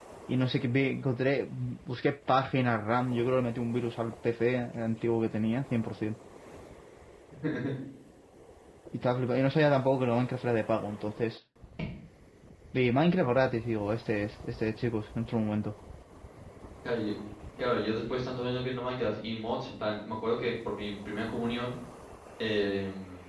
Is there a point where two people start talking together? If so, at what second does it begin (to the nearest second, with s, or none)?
none